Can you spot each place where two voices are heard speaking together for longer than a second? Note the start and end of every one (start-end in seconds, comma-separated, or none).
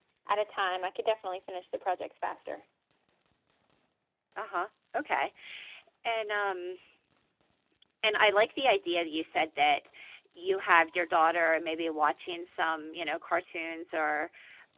none